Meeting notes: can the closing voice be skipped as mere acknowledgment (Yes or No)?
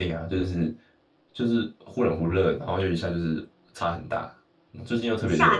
No